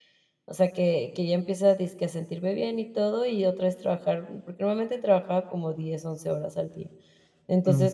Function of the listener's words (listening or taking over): listening